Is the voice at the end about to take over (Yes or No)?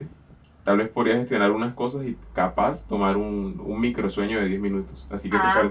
Yes